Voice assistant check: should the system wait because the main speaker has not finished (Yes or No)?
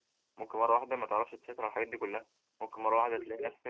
Yes